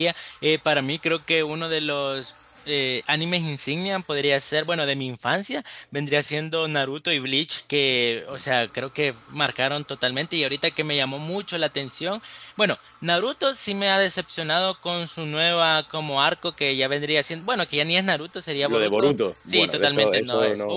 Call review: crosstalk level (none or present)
present